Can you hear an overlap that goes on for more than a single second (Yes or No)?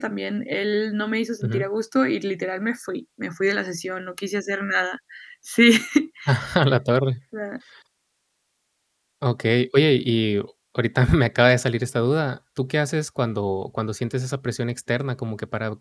No